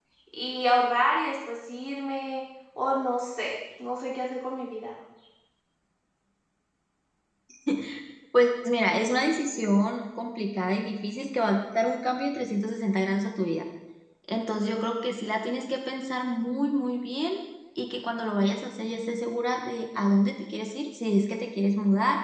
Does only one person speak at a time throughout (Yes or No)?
Yes